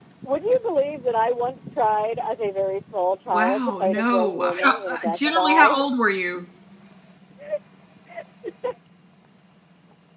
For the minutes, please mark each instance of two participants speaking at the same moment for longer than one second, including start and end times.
3.3-5.8

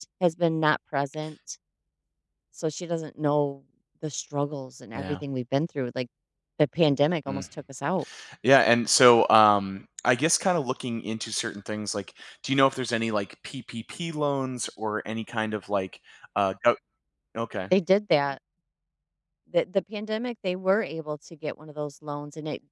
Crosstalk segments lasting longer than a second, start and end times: none

